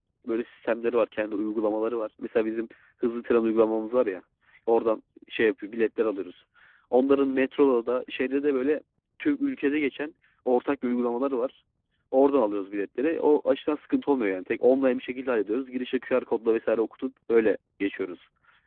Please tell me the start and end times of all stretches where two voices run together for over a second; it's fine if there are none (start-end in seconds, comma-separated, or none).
none